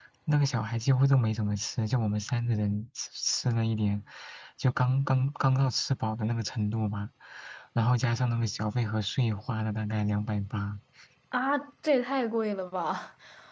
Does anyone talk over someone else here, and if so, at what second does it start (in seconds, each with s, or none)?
none